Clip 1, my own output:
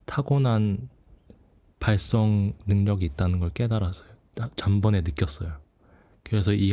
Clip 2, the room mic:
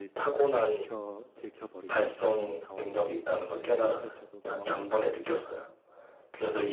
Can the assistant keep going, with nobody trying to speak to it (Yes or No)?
No